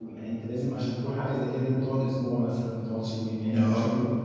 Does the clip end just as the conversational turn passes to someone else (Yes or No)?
Yes